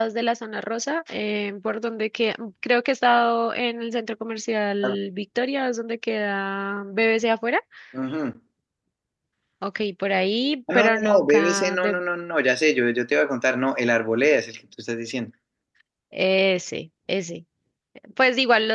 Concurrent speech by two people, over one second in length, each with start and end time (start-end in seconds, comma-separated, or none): 10.7-12.0